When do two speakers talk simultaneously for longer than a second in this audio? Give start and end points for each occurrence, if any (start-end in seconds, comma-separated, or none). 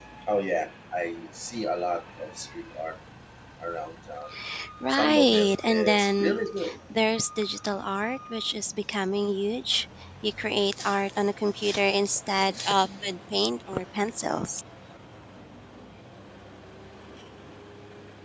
4.9-6.3